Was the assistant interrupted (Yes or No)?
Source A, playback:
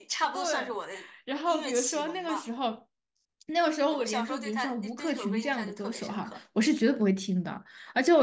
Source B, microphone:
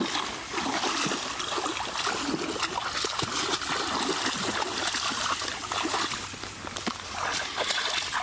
No